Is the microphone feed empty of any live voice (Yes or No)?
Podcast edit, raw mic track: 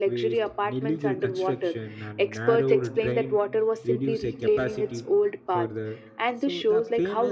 No